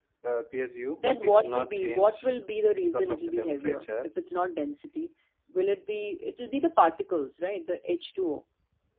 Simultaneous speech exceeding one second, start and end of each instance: 1.0-2.3, 2.8-4.1

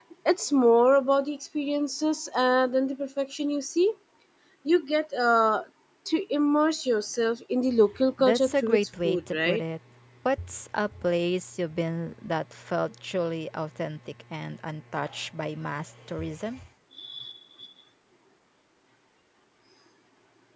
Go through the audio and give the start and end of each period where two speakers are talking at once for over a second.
8.2-9.6

